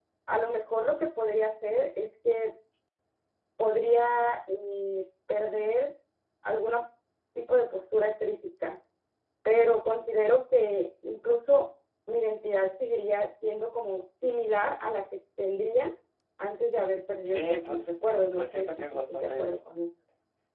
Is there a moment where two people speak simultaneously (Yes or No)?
Yes